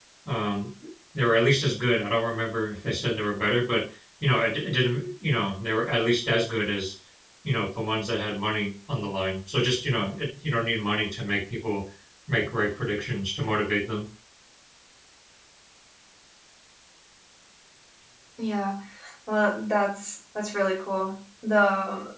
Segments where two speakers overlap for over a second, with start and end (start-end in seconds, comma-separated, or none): none